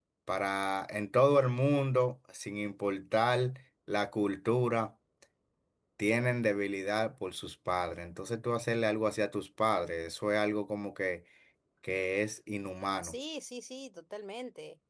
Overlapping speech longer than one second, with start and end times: none

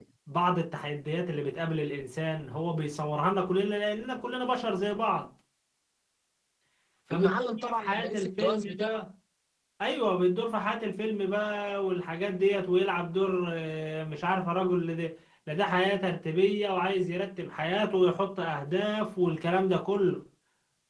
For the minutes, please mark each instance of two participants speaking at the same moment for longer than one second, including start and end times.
7.1-8.9

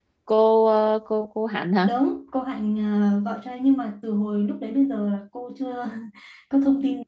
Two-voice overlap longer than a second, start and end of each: none

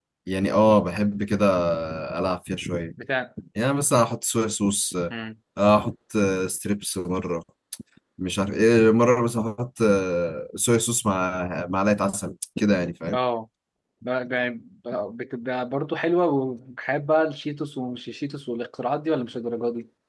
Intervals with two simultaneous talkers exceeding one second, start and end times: none

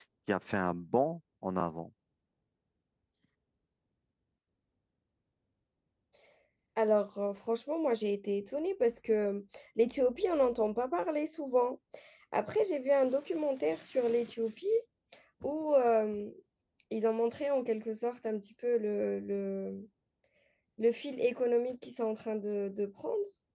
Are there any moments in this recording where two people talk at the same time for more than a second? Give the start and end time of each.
none

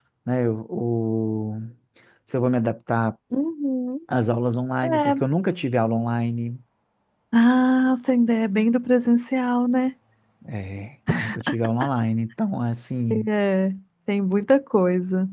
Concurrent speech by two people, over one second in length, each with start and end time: none

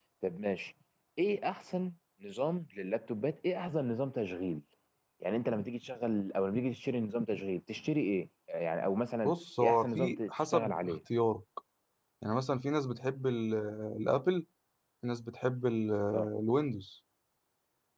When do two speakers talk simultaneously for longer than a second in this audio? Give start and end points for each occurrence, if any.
9.2-10.9

